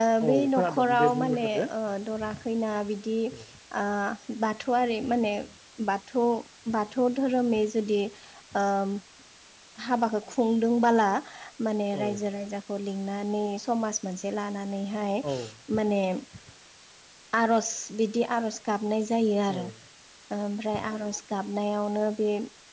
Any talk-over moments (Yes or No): Yes